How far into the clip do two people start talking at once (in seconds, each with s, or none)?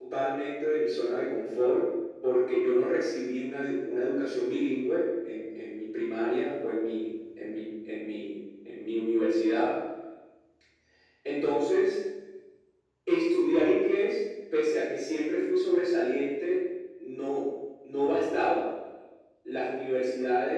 none